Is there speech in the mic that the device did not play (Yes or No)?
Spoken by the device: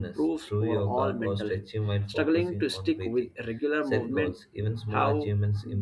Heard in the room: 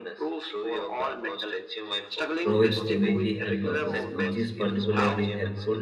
Yes